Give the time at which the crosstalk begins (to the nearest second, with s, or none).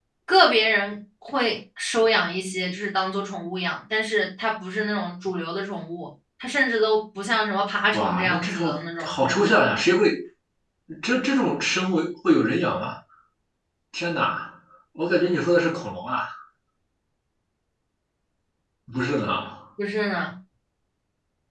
8 s